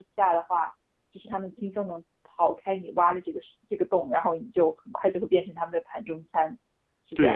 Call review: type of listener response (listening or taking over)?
taking over